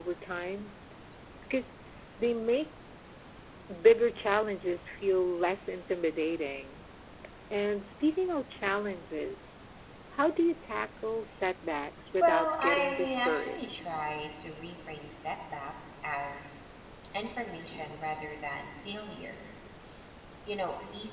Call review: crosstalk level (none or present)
present